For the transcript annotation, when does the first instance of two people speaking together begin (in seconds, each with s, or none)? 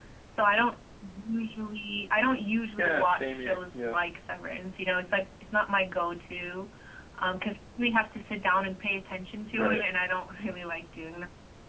2.8 s